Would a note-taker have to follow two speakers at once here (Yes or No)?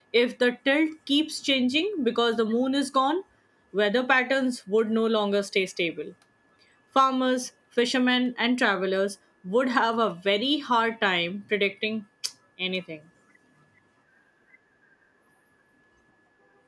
No